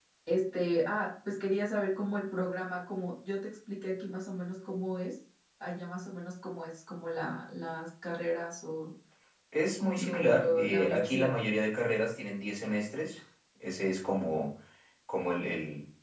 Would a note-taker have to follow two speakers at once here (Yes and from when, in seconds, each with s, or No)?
Yes, from 10.1 s